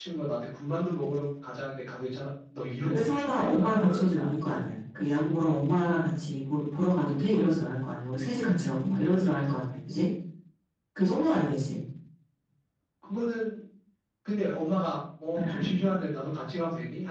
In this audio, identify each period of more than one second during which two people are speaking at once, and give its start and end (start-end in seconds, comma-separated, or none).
2.8-4.1